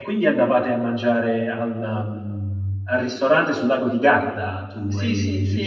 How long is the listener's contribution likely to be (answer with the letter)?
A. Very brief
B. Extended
B